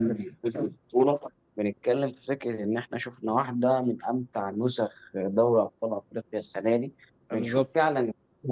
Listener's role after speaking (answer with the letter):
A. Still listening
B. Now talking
A